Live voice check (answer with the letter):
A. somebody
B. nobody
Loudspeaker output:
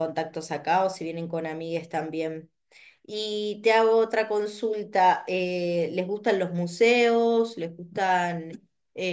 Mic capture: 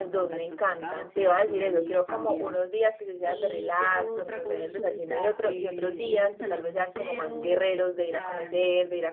A